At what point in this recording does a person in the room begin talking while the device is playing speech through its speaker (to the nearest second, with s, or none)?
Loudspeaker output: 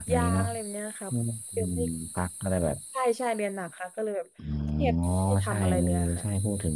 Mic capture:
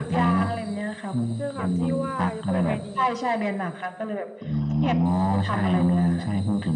1 s